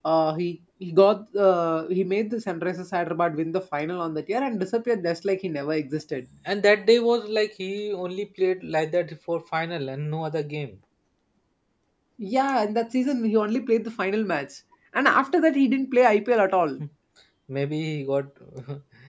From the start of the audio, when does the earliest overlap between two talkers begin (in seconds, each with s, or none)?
none